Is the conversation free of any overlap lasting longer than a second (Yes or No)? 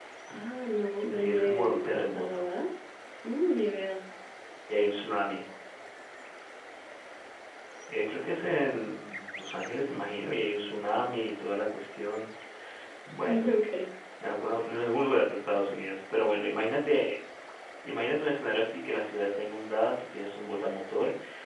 No